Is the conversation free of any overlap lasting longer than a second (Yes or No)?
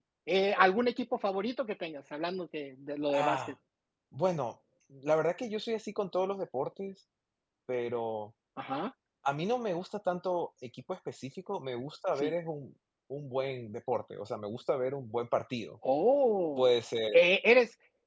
Yes